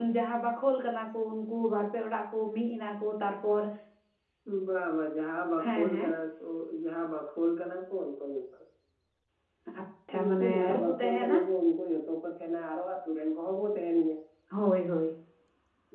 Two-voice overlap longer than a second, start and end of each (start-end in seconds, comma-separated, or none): 10.2-11.4